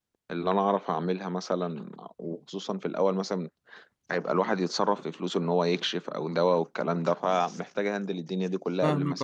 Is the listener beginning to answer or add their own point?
Yes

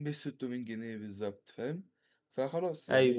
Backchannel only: No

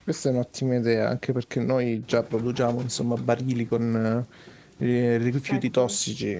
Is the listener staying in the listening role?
Yes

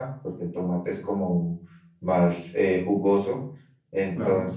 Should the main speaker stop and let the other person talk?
No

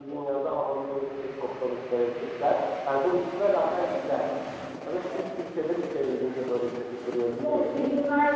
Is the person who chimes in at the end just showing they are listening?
No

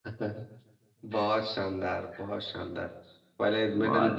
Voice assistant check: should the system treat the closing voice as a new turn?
No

